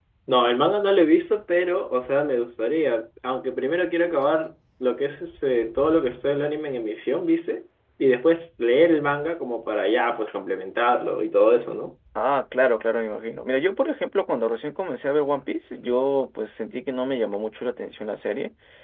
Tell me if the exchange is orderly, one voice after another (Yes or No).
Yes